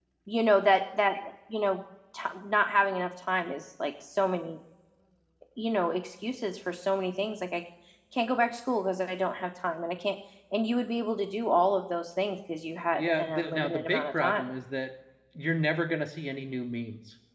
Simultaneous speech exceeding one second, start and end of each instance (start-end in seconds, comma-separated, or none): 12.9-14.4